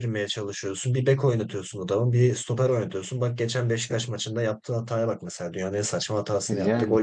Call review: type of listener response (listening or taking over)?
listening